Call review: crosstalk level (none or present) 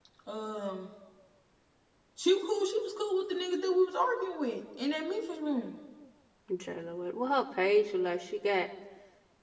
none